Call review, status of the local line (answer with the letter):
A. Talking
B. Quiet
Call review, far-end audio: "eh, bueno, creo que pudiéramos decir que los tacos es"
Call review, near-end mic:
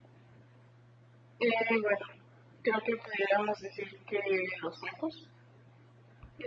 B